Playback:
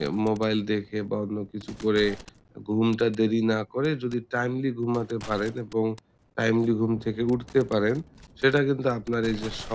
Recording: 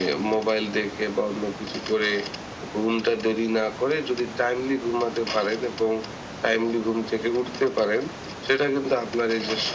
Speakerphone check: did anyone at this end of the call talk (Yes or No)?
No